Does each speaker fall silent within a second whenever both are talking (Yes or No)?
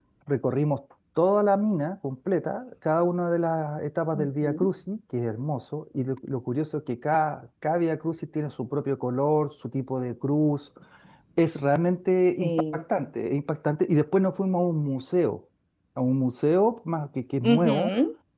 Yes